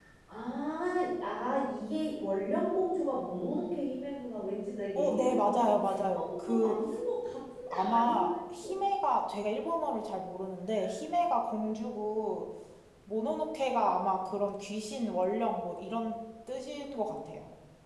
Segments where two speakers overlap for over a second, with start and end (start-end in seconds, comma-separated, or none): 5.0-6.8